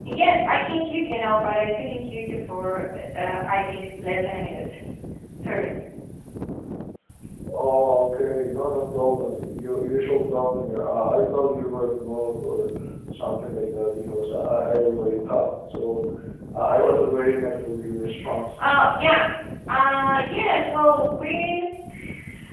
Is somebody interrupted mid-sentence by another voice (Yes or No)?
No